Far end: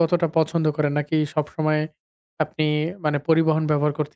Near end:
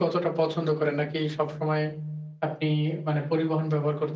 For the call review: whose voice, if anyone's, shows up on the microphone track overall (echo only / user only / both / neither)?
echo only